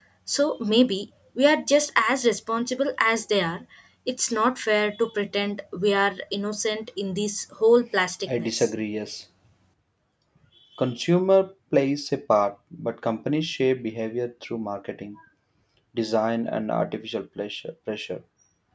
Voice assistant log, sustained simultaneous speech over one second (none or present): none